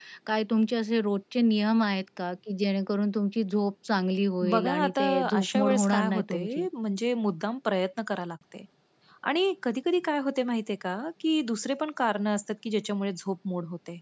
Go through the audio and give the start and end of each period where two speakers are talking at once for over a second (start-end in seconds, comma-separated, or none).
4.4-6.7